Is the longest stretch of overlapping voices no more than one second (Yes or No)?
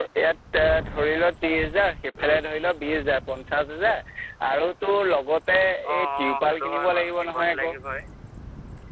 No